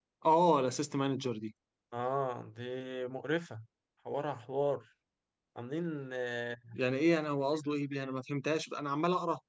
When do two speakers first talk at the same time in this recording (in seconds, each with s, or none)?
none